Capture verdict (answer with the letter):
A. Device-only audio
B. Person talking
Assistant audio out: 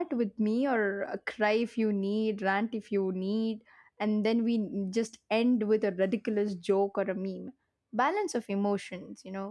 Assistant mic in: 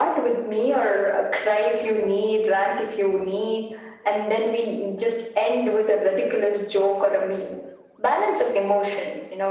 A